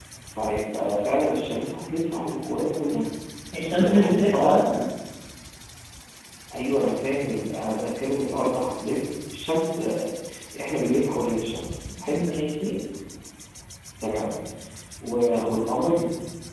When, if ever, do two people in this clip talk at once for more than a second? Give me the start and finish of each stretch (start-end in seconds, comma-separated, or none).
3.7-4.9